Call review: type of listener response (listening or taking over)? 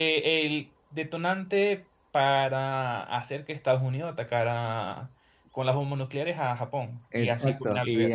taking over